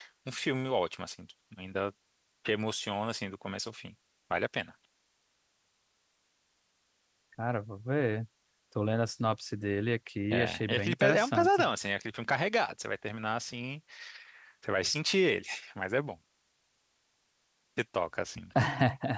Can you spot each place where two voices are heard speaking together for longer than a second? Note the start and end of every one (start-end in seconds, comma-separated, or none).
10.3-11.7